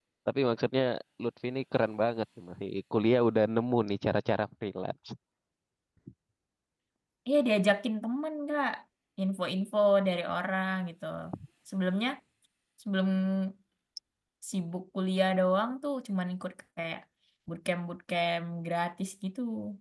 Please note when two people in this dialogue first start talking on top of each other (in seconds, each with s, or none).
none